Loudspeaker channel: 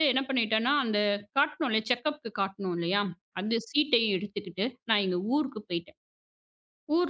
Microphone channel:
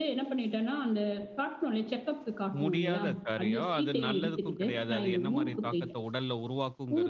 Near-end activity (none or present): present